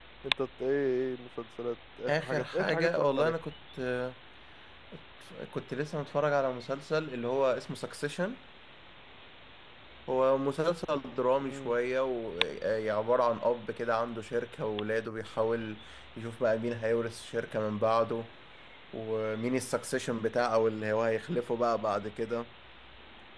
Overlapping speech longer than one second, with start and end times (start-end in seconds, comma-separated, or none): 2.1-3.3